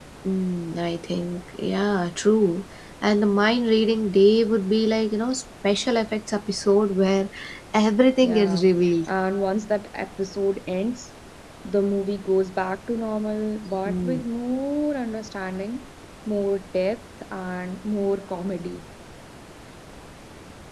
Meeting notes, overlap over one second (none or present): none